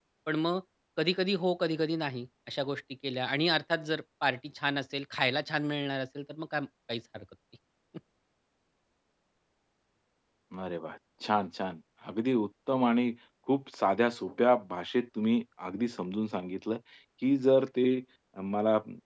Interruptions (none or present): none